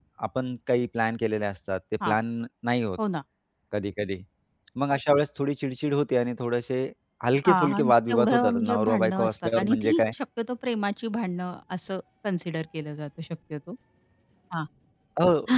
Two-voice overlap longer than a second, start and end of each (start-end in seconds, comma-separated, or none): 7.5-10.0